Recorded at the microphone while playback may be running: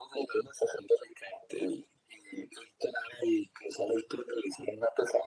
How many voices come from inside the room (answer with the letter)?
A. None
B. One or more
A